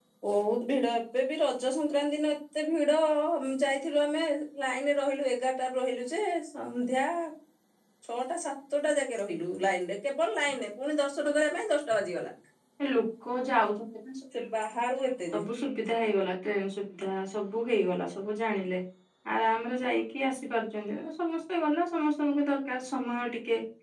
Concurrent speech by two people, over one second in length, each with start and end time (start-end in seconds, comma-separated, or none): none